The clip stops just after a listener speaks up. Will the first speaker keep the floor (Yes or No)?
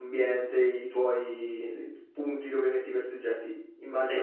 Yes